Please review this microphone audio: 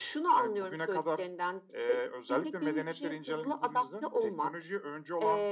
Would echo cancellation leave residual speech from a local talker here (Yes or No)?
No